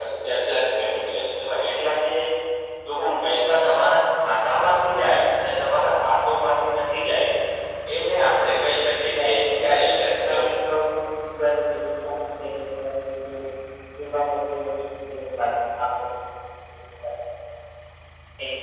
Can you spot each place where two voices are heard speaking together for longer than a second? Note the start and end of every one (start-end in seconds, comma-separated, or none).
9.2-10.5